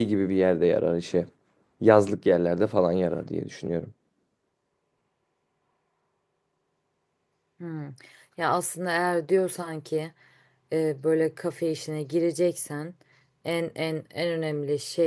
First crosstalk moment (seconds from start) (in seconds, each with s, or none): none